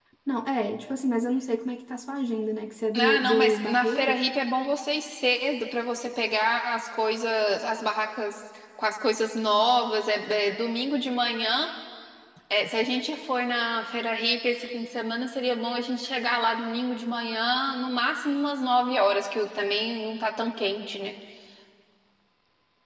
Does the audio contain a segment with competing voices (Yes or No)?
Yes